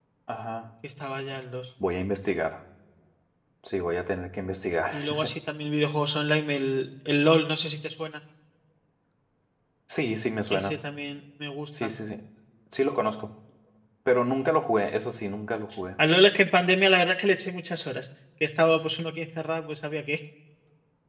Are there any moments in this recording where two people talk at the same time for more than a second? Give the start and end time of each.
none

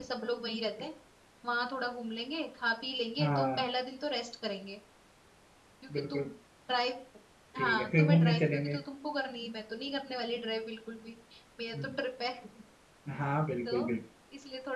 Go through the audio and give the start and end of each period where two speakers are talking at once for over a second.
7.6-8.8

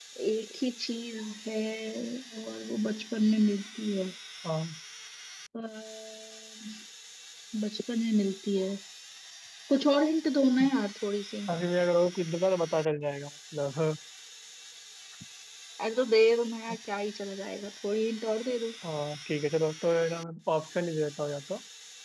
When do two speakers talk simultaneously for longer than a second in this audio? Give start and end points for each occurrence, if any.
none

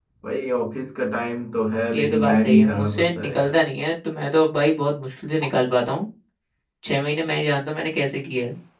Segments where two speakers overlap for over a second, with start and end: 1.9-3.5

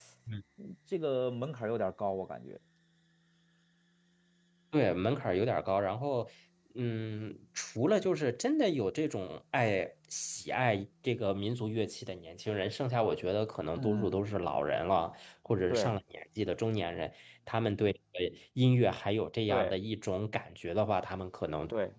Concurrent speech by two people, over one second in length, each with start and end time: none

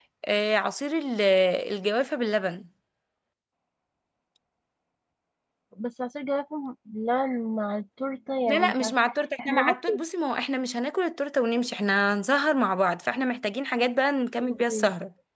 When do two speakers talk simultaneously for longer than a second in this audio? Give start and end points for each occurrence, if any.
none

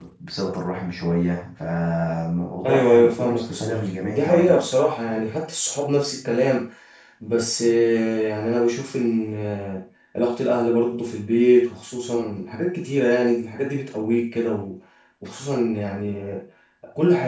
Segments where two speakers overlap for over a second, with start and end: 2.6-4.6

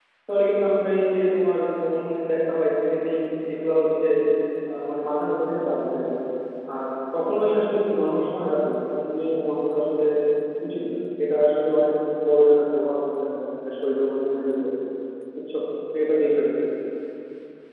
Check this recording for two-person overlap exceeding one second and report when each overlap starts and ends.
none

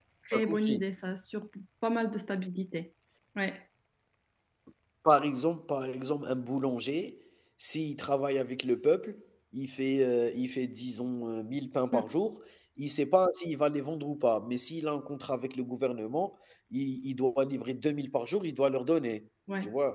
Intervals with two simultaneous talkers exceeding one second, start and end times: none

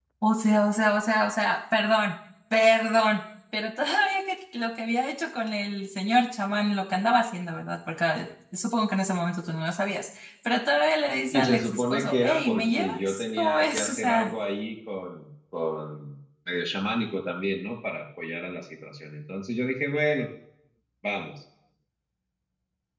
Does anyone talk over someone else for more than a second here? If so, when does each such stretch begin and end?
11.3-14.3

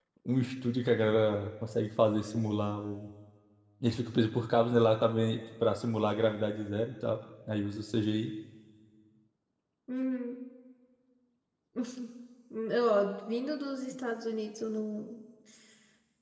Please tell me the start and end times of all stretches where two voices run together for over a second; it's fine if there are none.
none

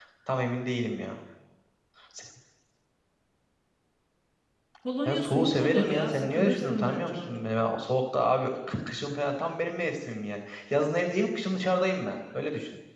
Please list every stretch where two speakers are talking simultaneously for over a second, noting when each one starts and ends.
5.0-7.5

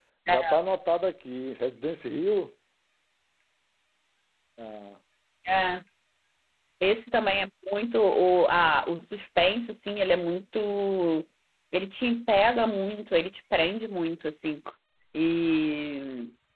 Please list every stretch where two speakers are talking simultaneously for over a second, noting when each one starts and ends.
none

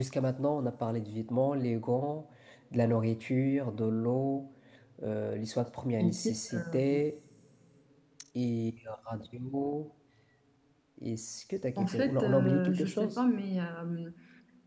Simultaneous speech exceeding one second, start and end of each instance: 11.8-13.2

